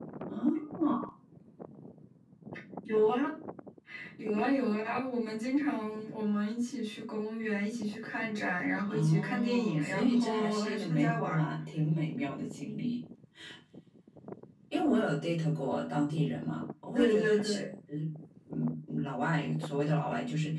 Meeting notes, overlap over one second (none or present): present